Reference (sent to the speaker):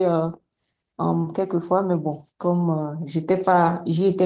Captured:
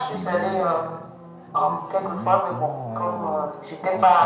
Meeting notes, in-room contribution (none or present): present